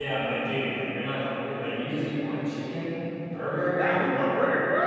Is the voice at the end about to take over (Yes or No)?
Yes